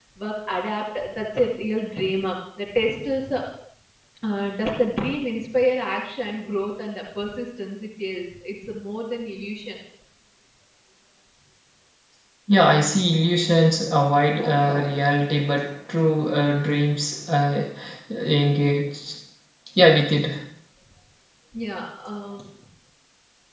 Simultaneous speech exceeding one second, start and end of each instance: none

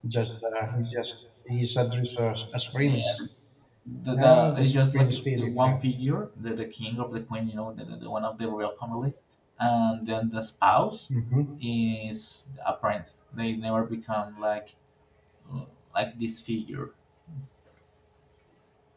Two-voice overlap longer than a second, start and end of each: 4.1-5.8

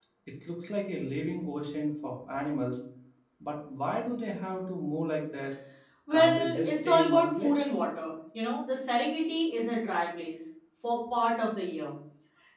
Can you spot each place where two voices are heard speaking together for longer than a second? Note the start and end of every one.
6.1-7.7

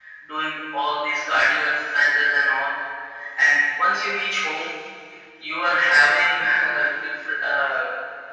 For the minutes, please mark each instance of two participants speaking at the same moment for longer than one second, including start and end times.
none

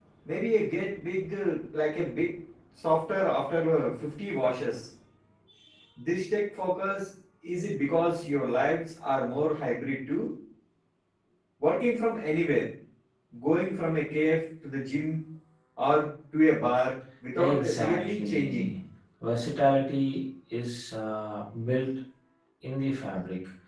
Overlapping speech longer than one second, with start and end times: 17.4-18.7

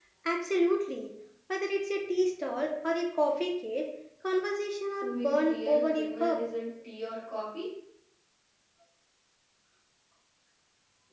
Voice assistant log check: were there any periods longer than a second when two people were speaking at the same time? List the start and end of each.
5.0-6.4

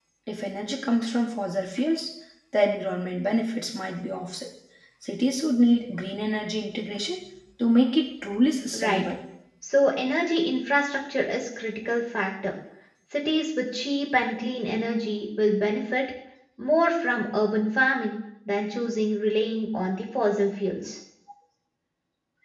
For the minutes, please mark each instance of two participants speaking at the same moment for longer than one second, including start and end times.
none

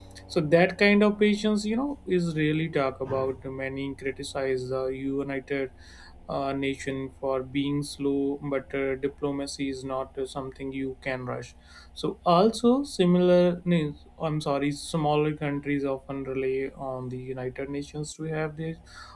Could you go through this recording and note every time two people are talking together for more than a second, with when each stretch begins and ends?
none

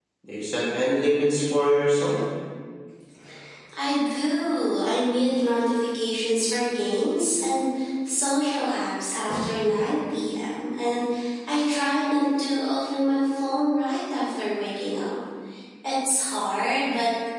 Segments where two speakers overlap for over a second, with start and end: none

